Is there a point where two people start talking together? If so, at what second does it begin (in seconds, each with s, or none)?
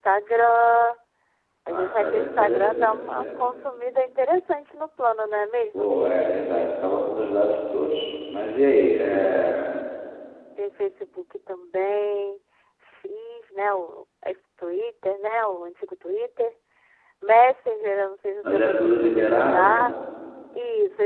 1.7 s